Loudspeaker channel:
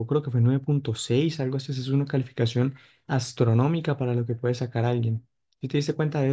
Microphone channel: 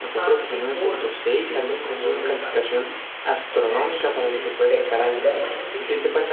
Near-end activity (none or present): present